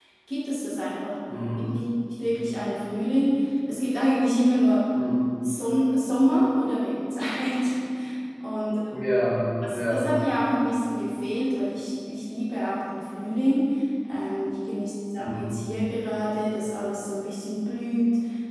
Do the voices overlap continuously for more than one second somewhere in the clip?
No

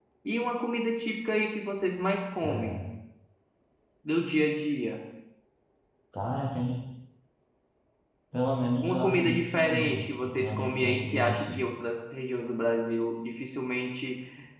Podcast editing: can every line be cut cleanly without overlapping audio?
No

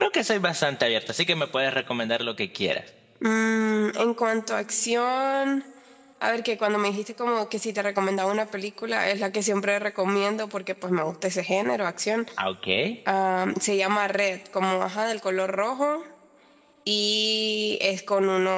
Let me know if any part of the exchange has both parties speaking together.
No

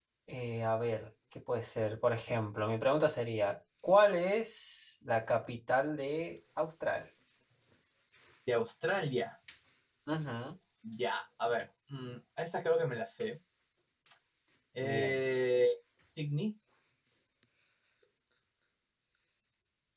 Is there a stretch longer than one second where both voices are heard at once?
No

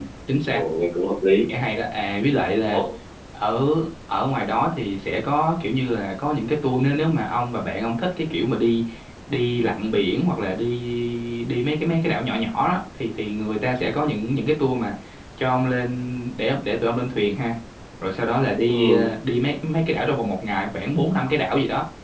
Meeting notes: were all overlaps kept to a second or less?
Yes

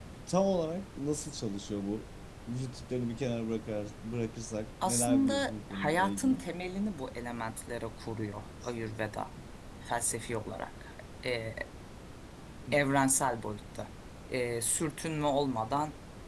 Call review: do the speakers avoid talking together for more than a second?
No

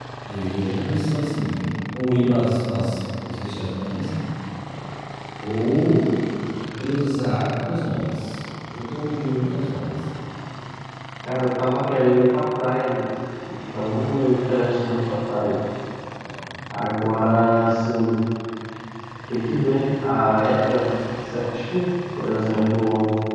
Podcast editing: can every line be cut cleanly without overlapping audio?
Yes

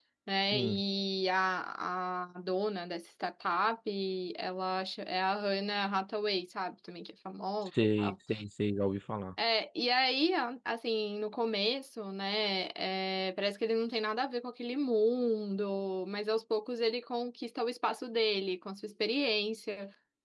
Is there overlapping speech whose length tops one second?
No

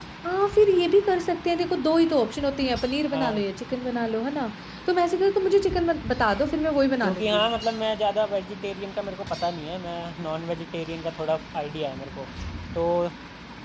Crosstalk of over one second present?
No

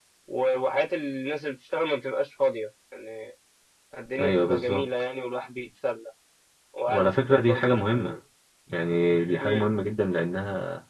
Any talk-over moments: Yes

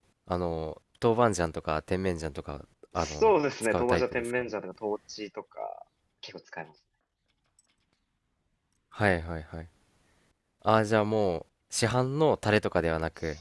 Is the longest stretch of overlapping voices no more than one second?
No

